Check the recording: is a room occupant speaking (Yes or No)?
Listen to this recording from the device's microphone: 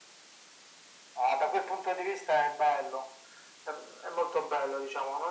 No